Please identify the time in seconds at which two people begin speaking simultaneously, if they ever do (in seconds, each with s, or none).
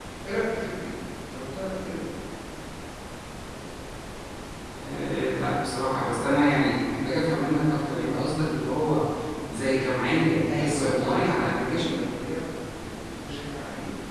10.5 s